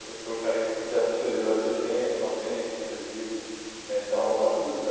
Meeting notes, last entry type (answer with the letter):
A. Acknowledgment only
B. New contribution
B